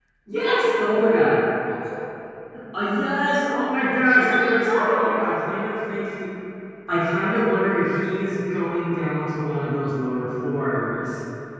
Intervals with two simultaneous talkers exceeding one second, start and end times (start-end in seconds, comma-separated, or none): 4.1-5.3